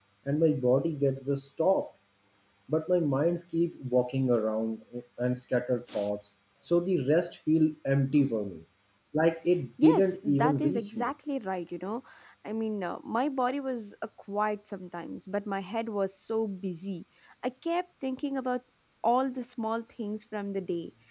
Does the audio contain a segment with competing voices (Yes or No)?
Yes